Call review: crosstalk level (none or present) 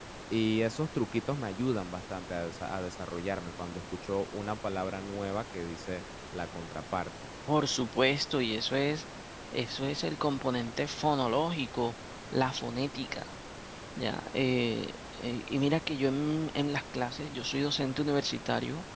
none